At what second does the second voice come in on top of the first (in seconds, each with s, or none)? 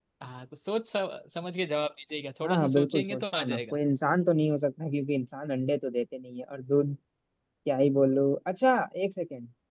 2.4 s